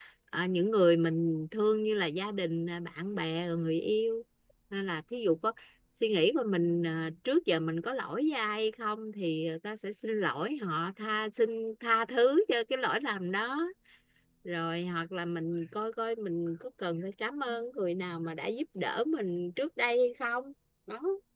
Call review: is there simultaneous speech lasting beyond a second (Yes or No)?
No